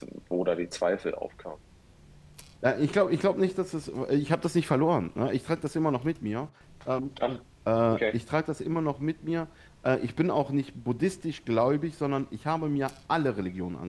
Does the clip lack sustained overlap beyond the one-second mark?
Yes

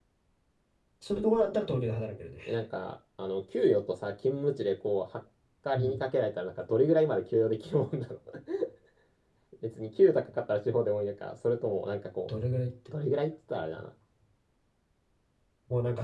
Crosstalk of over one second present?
No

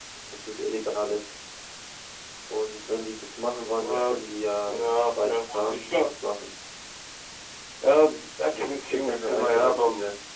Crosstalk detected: Yes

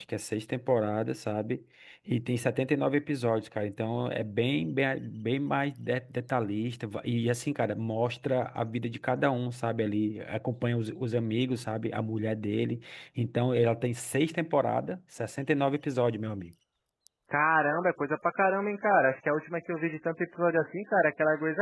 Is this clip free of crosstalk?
Yes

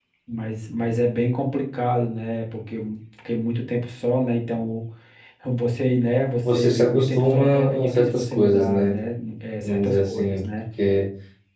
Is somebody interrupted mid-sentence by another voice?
Yes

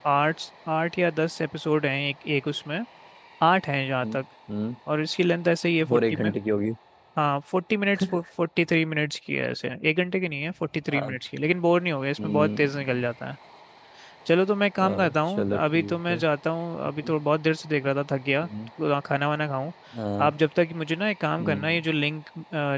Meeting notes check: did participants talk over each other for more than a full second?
Yes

